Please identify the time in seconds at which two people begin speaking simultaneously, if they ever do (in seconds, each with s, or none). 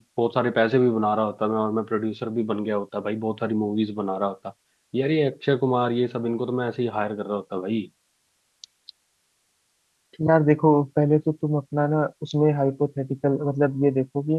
none